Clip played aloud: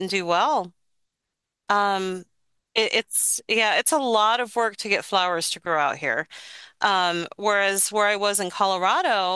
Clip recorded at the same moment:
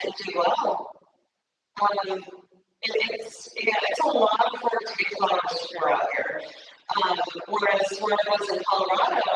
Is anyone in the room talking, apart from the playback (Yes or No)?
No